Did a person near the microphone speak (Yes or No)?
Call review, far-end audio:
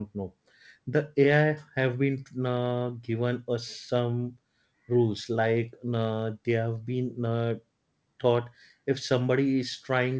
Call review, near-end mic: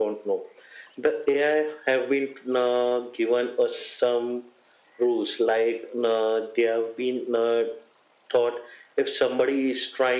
No